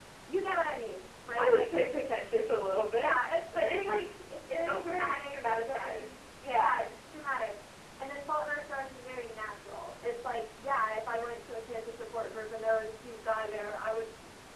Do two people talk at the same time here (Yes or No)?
Yes